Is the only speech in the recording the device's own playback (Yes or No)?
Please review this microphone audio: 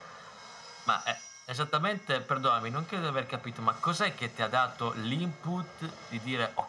Yes